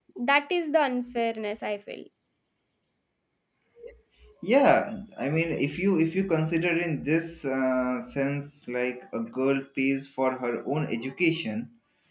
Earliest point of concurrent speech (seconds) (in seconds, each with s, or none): none